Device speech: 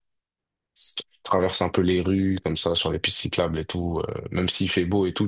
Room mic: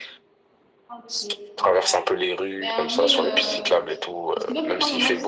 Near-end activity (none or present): present